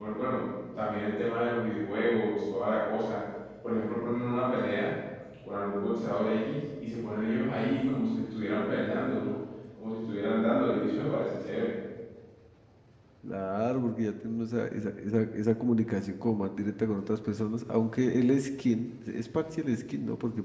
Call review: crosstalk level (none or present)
none